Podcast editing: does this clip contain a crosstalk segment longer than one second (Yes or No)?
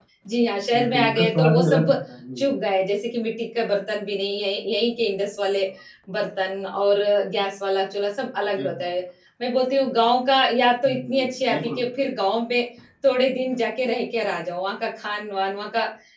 Yes